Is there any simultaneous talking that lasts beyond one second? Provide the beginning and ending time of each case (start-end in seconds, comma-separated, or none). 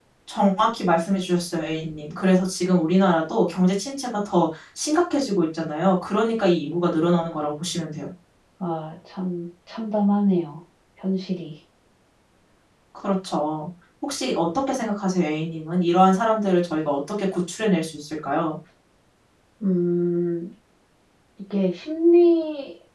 none